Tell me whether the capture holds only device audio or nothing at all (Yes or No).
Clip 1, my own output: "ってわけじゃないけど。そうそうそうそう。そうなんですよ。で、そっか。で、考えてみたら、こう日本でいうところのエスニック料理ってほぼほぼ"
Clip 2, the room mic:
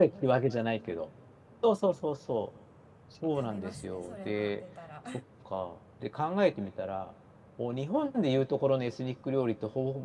No